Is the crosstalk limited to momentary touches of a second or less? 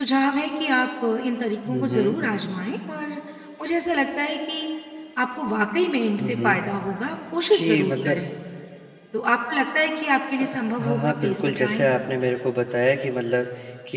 No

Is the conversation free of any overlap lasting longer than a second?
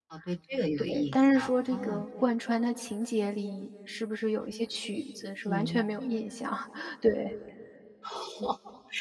No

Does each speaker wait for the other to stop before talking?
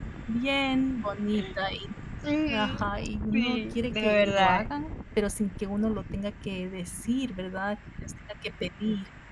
No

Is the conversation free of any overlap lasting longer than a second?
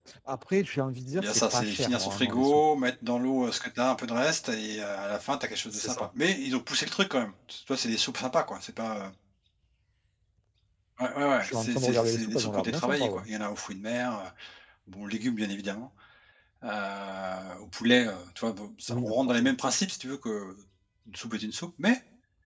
No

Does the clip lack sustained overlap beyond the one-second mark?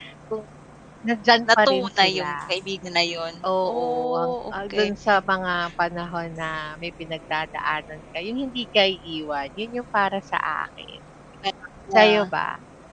No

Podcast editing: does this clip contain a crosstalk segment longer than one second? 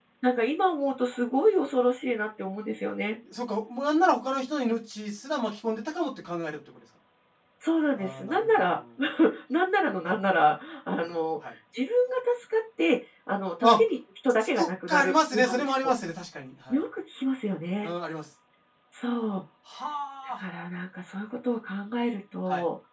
Yes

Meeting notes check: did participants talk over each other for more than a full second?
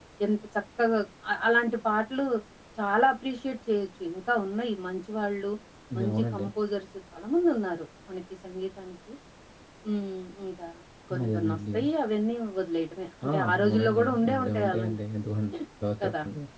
Yes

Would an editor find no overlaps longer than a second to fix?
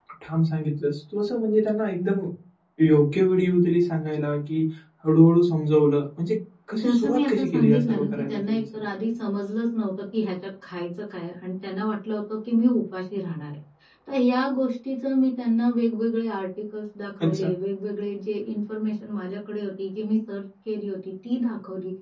No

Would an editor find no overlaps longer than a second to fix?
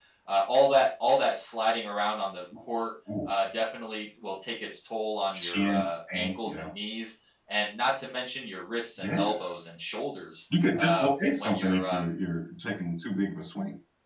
No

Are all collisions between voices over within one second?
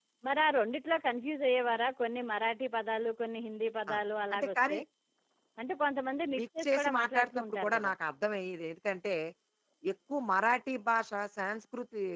No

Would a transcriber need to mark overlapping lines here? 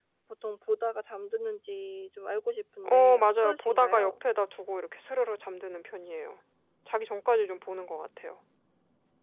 Yes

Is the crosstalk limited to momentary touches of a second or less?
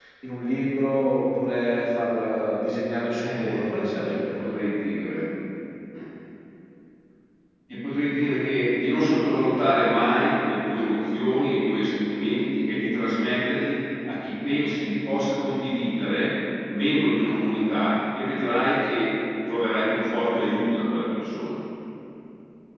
No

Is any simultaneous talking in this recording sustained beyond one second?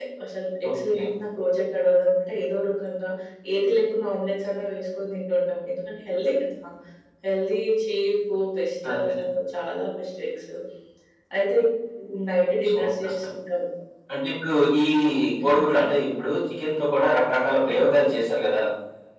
No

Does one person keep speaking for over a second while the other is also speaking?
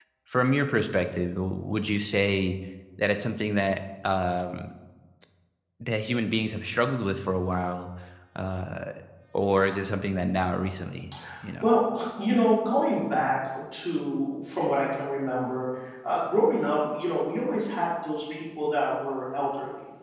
No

